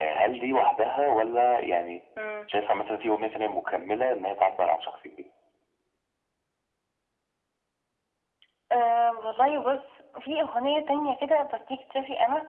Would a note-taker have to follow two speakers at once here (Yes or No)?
No